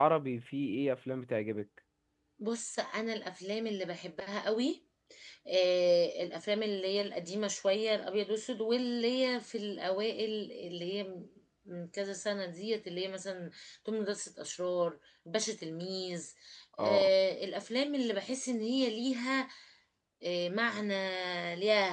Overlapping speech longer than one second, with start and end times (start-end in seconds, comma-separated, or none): none